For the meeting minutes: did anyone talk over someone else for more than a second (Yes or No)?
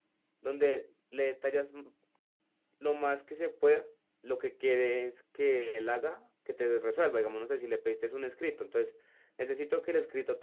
No